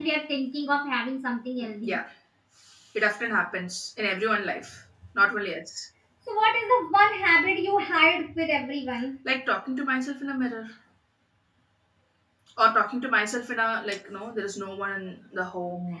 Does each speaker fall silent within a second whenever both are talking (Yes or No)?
Yes